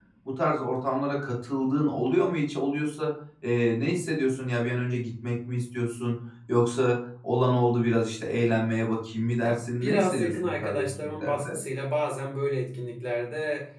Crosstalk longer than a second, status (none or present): present